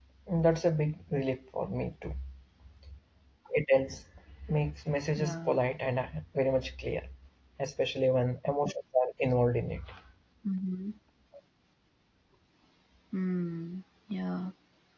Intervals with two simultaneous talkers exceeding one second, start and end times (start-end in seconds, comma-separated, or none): none